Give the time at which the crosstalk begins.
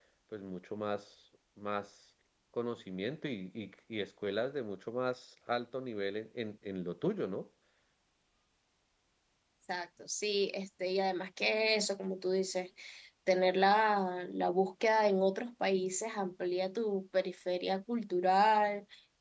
none

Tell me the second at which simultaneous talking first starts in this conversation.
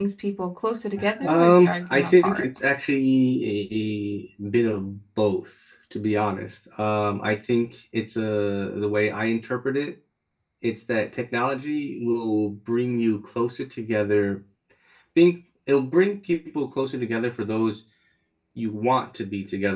1.2 s

